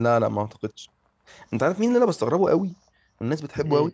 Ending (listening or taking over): listening